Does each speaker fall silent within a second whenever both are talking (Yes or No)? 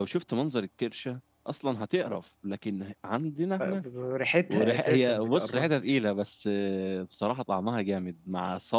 No